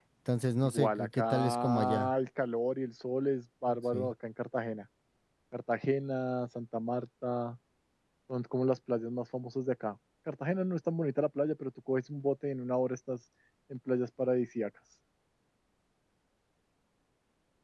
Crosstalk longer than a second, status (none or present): present